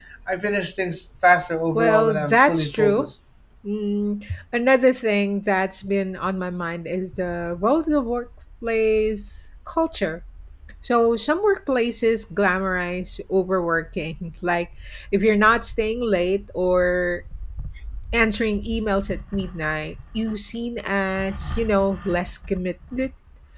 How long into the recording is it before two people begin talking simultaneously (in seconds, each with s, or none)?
1.8 s